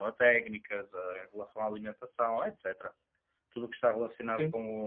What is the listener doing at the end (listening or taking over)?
listening